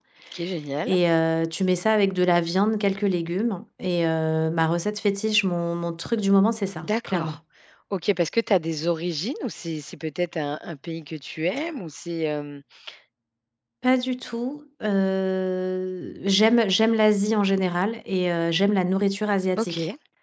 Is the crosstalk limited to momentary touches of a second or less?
Yes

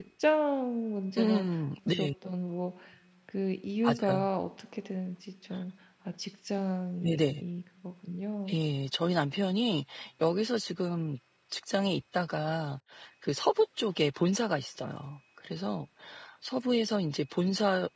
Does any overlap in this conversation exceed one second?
No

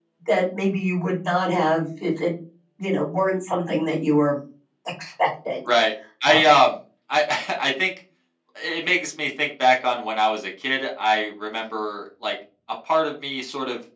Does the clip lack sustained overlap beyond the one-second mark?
Yes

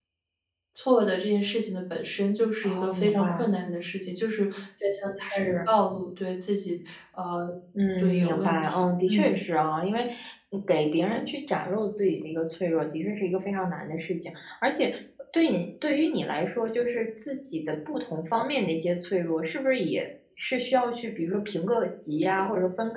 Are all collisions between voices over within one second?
No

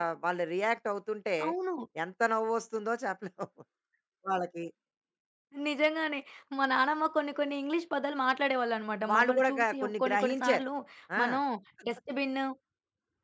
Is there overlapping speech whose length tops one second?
Yes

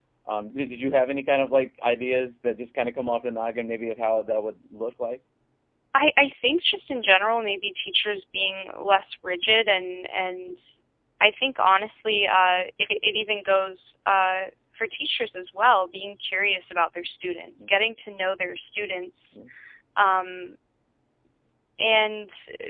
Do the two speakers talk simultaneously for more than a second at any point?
No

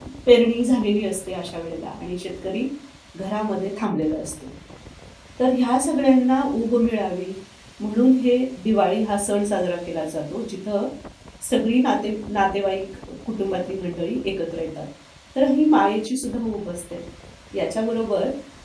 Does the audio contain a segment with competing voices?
No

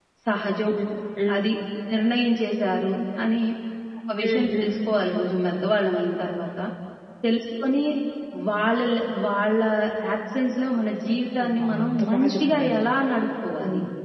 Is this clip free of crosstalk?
No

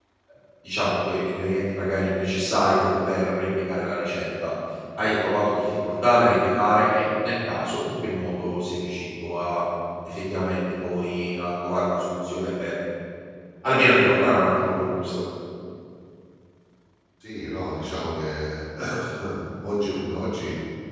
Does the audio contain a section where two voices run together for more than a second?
No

